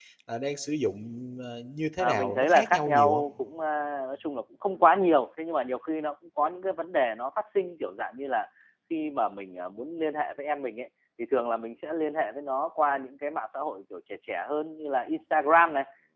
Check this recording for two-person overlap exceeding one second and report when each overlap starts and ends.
2.0-3.2

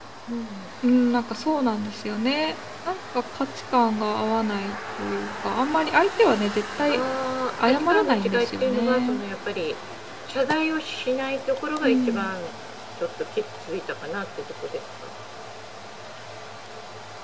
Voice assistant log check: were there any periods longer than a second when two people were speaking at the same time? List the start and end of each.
7.6-9.2

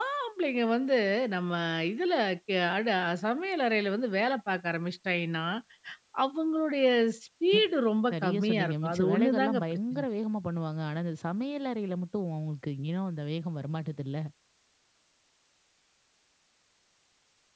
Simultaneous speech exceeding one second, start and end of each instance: 8.1-10.0

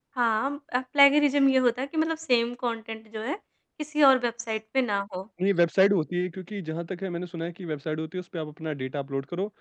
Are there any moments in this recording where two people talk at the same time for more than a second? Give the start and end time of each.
none

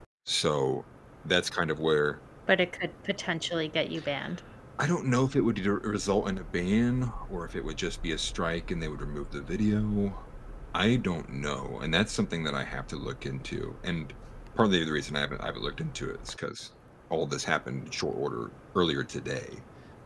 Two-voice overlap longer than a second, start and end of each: none

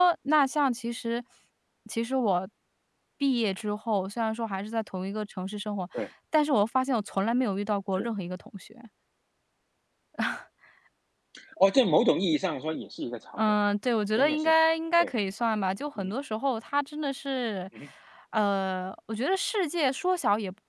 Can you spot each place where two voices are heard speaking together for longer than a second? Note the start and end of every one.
none

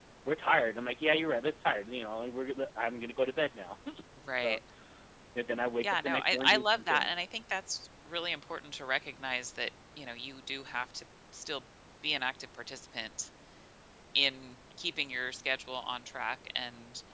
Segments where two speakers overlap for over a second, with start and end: 5.8-7.1

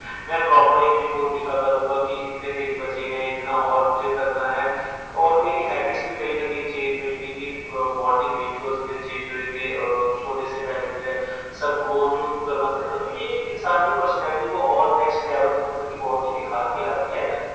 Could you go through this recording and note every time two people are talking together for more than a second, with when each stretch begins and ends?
none

